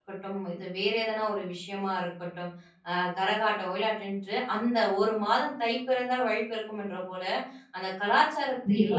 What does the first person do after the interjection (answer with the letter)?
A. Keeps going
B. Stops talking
A